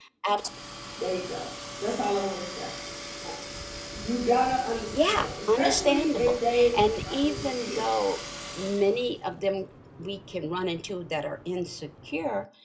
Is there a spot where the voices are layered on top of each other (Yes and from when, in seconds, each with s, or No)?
Yes, from 4.7 s